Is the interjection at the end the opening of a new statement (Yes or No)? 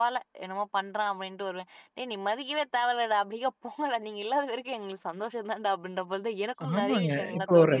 Yes